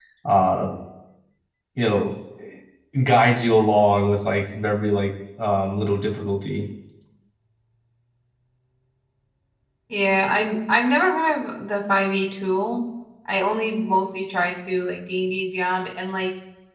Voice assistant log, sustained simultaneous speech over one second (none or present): none